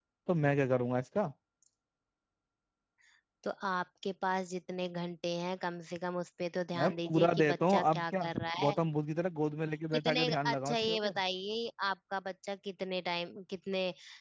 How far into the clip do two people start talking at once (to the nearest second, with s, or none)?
7 s